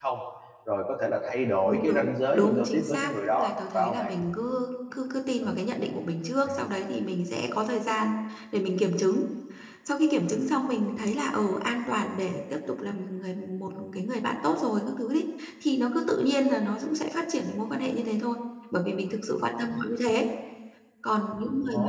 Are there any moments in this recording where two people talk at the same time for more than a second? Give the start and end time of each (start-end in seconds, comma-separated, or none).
1.7-4.1